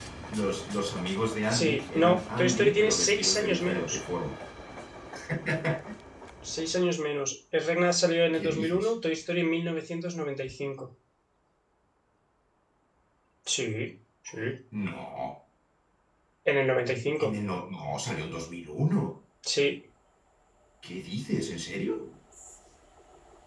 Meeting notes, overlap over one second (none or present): present